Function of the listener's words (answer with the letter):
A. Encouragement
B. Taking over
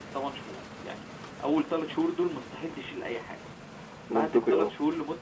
A